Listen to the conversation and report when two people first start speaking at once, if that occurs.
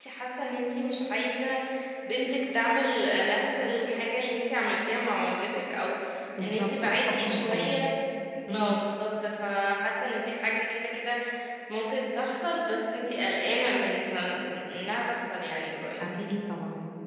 6 s

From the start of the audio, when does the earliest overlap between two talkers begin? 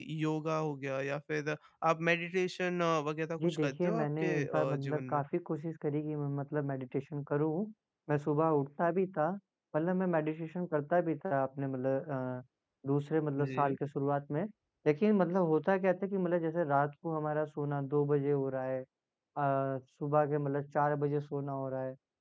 3 s

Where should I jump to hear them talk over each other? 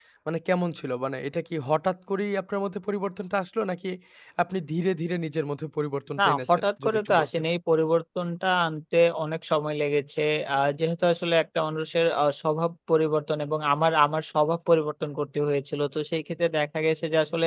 6 s

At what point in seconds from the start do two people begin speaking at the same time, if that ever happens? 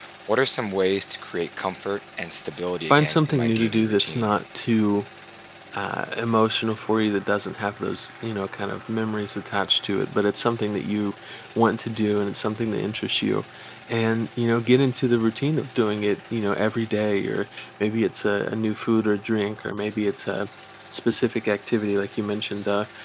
3 s

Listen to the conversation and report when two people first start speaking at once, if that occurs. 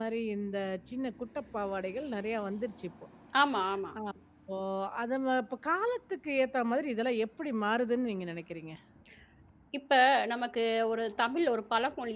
none

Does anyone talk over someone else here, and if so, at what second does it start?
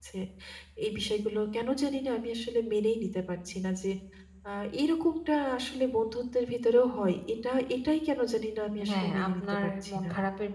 9 s

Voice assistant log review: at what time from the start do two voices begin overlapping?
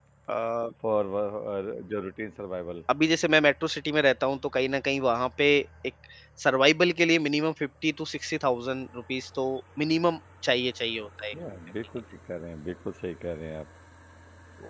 none

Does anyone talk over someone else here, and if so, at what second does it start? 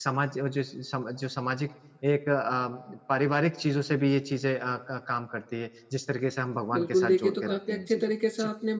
7 s

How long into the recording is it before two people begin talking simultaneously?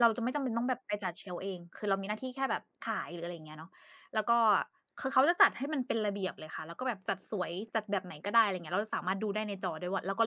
none

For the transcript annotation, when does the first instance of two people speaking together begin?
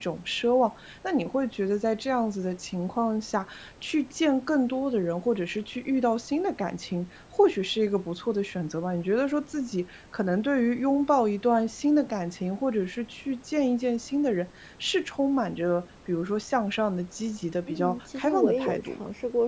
18 s

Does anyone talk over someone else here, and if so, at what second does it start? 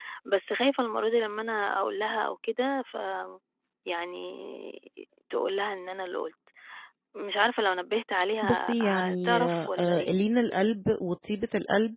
8 s

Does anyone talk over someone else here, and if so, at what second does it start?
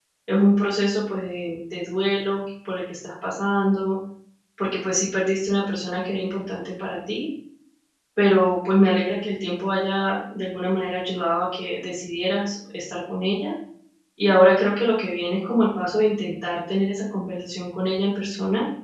none

